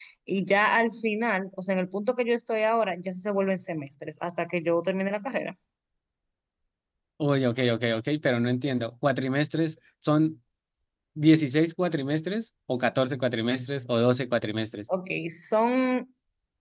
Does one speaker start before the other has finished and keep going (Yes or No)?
No